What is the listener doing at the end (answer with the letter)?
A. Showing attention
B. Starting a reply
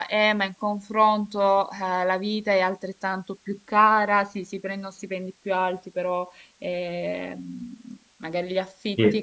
A